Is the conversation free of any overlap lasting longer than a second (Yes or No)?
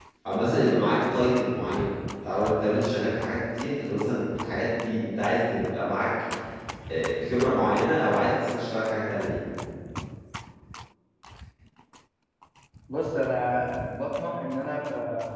Yes